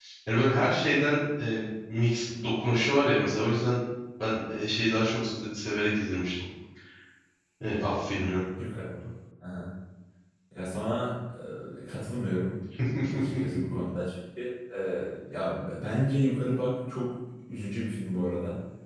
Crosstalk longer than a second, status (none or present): none